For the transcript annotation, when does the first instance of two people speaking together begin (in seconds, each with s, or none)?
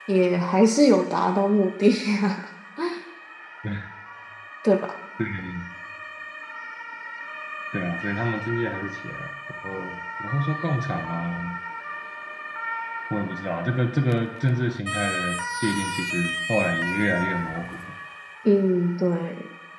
none